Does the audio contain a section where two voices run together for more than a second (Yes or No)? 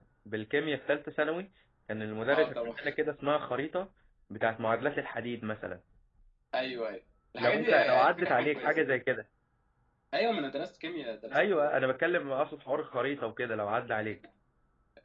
Yes